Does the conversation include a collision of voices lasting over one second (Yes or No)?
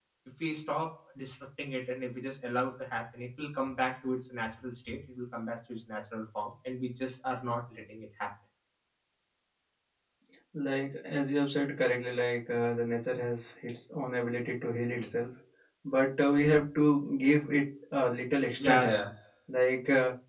No